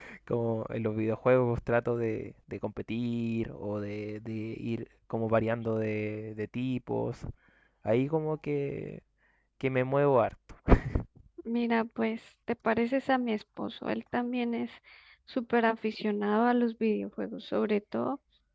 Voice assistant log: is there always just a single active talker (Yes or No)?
Yes